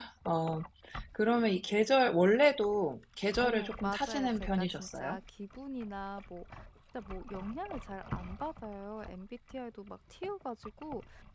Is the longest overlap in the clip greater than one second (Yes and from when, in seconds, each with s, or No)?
Yes, from 3.4 s